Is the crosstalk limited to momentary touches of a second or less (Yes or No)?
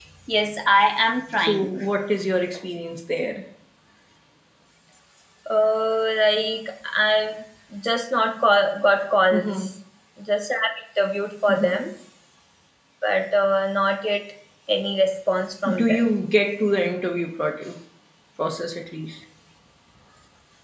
Yes